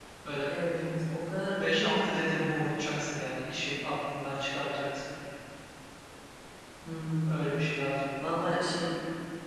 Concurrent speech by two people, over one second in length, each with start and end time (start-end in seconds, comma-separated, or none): none